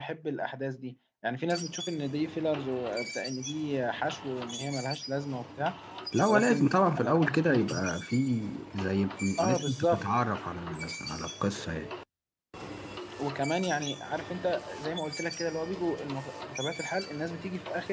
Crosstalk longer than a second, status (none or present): present